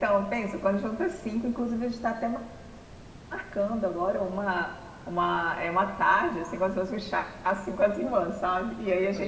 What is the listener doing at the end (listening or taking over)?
taking over